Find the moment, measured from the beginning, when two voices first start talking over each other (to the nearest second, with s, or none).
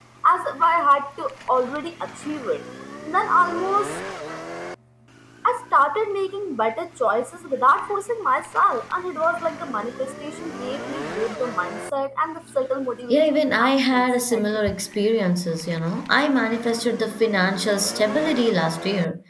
13 s